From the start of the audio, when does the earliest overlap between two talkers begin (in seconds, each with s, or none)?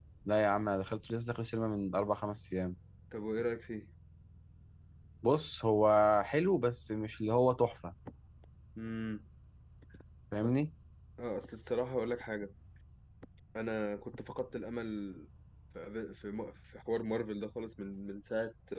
none